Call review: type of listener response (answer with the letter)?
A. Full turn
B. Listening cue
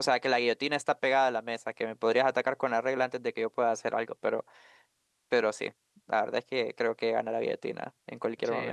A